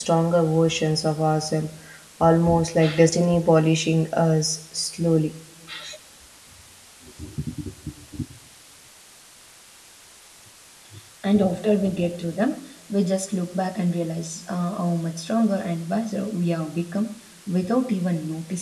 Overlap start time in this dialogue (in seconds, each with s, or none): none